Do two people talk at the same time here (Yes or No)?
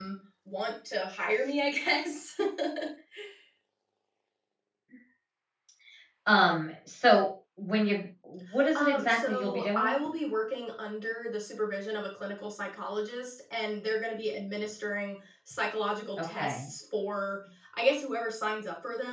Yes